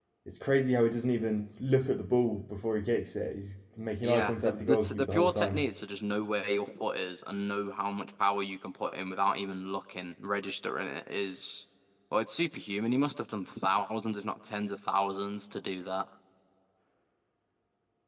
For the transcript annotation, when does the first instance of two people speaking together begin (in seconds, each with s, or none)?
4.0 s